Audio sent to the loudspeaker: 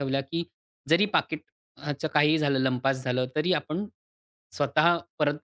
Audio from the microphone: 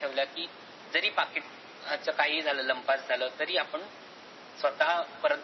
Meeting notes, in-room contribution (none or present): none